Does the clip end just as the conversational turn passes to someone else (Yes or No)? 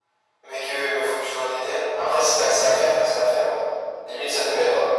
Yes